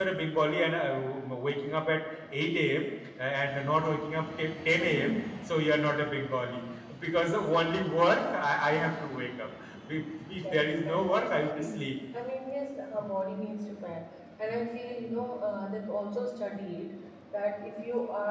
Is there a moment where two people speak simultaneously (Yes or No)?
Yes